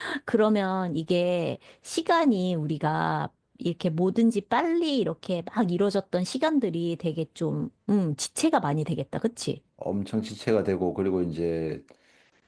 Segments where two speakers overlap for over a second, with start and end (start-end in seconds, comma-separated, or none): none